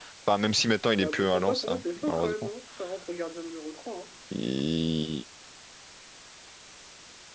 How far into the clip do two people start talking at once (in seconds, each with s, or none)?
1.0 s